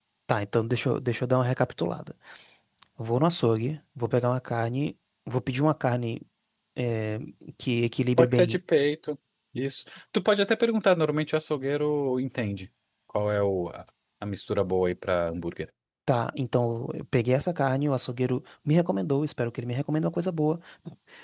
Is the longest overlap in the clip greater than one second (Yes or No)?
No